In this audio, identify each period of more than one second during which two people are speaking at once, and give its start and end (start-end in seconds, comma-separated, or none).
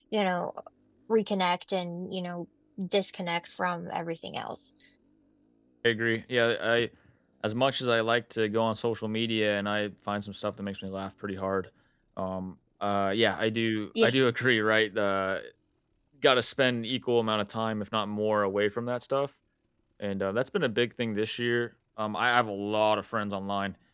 none